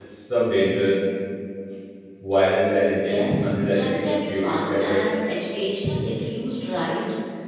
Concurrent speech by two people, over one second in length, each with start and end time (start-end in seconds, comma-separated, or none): 3.0-5.0